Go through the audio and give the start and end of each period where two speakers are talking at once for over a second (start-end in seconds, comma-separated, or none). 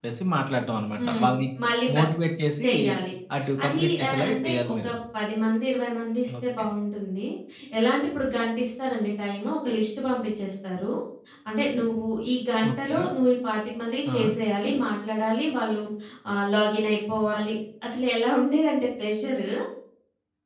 3.6-4.9